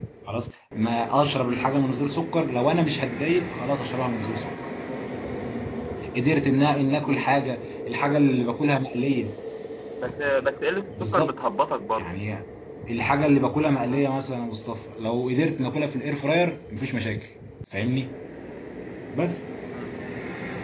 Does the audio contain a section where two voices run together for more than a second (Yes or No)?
No